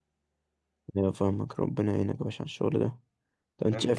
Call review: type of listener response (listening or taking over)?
listening